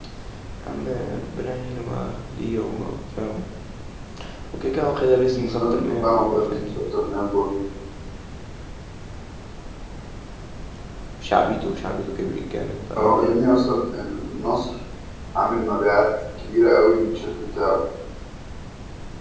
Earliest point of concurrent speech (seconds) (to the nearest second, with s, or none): 5 s